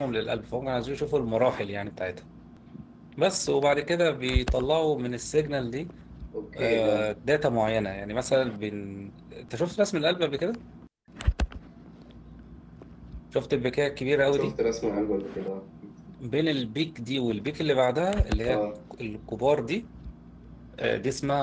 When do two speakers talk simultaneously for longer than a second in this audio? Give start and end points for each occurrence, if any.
none

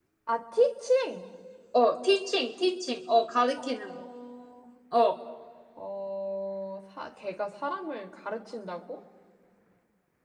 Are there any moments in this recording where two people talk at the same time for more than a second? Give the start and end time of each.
none

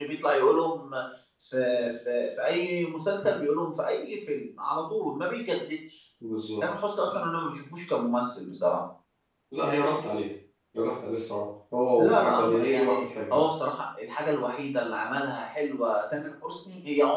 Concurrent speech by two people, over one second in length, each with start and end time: 12.0-13.4

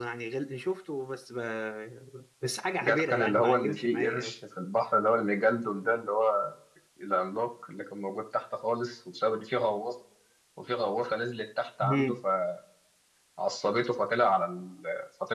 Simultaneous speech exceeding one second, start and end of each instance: 2.8-4.3

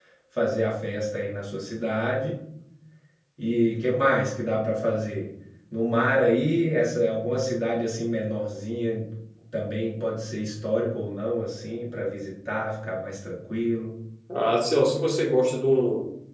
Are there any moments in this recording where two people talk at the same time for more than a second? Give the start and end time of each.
none

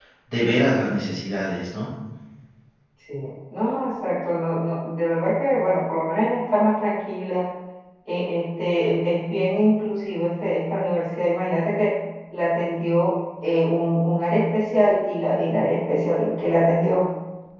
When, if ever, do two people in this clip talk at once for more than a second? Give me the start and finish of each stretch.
none

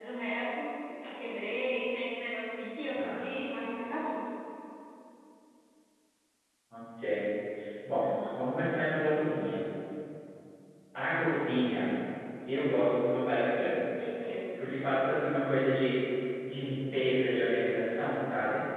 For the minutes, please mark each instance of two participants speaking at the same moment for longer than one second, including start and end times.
none

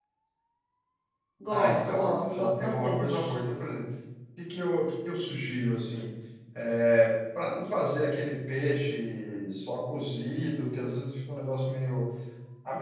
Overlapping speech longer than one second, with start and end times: 1.5-3.1

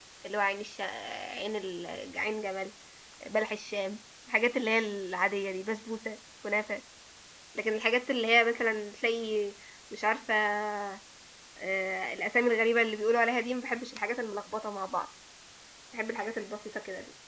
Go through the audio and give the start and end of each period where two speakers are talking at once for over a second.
none

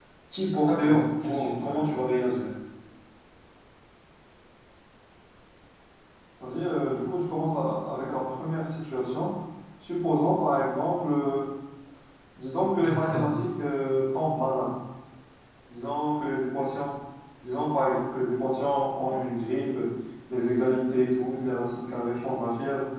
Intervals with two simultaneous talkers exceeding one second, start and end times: 0.6-1.9

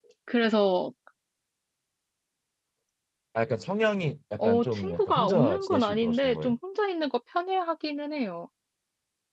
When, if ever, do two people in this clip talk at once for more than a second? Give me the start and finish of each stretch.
4.4-6.5

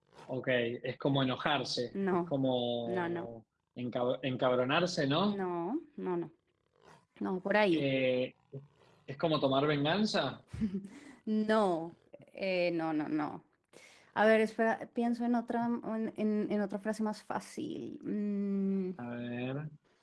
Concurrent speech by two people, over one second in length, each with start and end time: none

